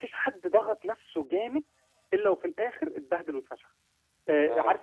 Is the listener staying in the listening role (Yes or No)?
Yes